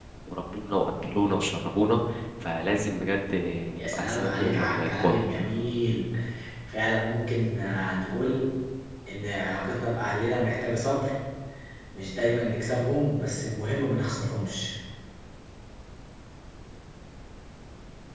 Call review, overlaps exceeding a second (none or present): present